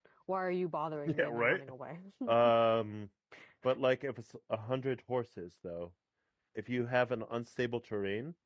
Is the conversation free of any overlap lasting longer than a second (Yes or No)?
Yes